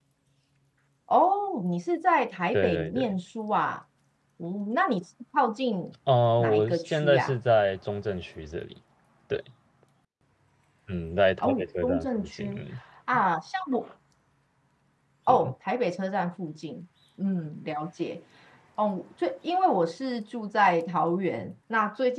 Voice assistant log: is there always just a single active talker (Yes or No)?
No